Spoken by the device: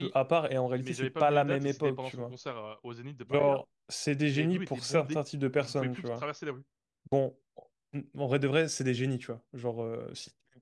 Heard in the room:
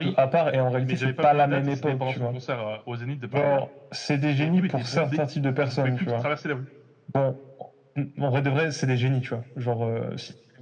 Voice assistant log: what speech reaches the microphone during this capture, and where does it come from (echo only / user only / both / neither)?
echo only